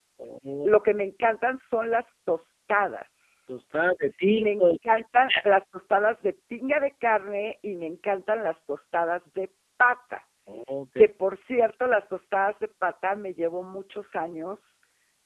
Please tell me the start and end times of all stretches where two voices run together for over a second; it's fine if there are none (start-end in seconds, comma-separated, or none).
none